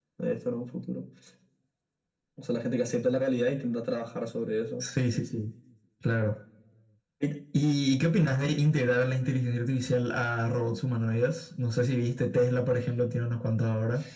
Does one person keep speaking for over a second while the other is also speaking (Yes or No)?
No